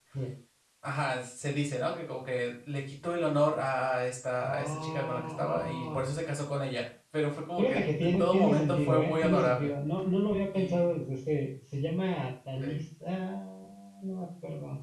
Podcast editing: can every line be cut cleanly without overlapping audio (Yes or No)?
No